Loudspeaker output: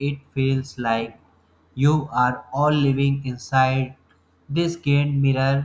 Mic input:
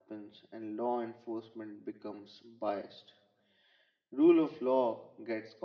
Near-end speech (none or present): present